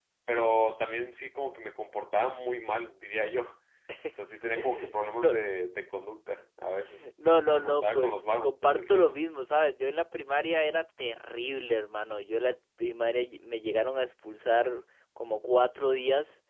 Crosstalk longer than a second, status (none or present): present